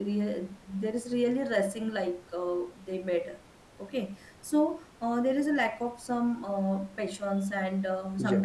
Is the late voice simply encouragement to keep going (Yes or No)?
Yes